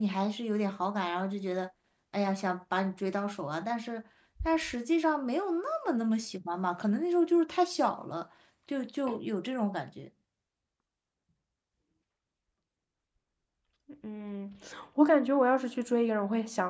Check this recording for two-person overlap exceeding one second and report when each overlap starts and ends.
none

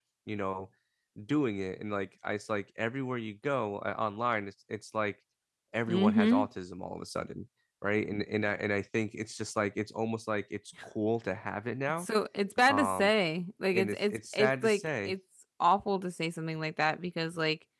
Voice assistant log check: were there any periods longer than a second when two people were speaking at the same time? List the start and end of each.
13.7-15.1

